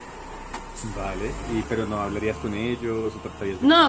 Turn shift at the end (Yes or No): Yes